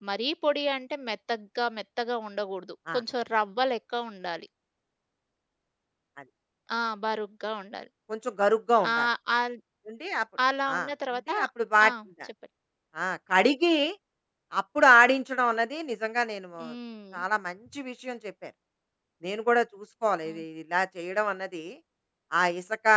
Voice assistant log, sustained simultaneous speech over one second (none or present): none